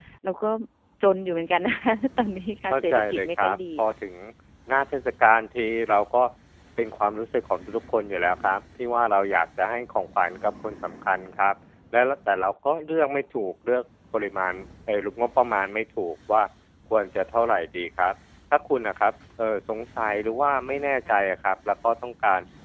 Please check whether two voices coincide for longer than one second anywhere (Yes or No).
Yes